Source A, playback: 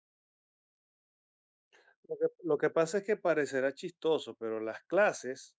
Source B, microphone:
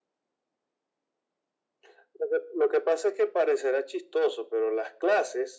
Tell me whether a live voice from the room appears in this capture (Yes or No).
No